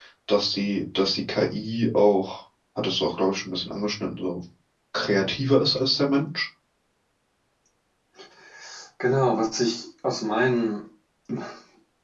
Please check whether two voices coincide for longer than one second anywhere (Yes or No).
No